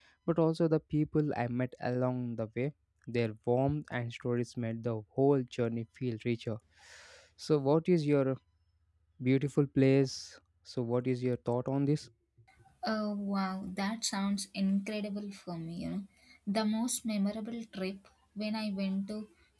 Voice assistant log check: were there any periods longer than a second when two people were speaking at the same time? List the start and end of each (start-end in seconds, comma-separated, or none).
none